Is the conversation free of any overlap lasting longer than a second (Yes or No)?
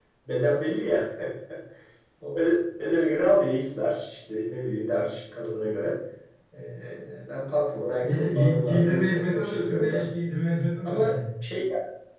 No